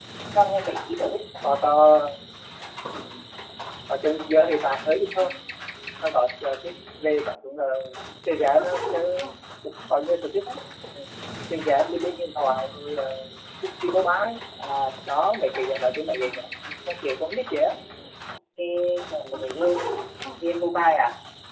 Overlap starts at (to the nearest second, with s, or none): none